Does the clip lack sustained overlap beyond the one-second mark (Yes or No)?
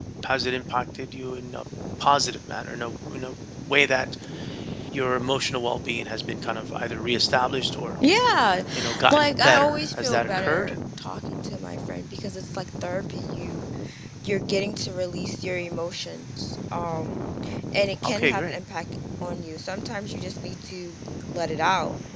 No